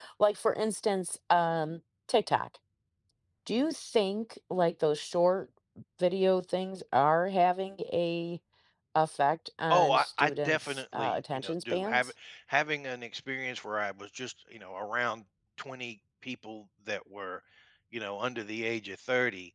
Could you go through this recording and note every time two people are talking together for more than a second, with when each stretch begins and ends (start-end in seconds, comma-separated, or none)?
9.7-12.1